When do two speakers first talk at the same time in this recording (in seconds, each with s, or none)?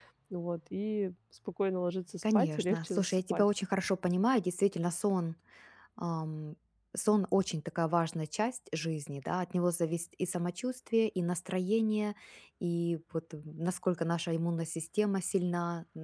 2.2 s